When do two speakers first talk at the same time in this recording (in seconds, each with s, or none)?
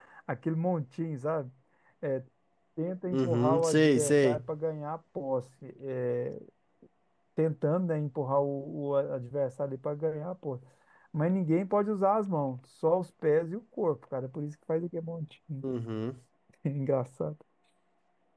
3.1 s